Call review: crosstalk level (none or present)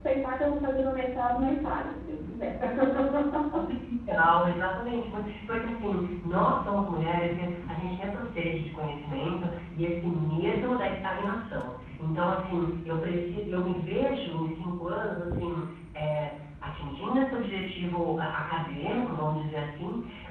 none